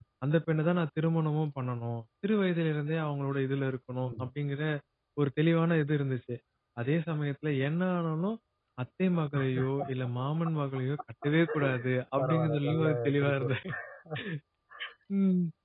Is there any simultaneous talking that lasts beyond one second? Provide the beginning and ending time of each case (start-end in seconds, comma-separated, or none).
12.2-13.6